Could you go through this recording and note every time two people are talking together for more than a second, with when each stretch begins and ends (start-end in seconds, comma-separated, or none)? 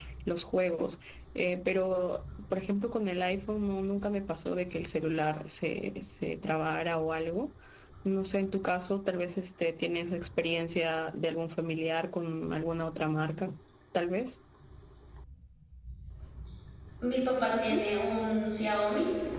none